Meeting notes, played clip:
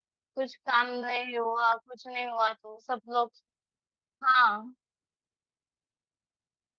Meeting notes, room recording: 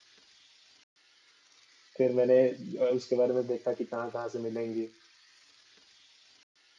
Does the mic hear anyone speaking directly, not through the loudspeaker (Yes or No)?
Yes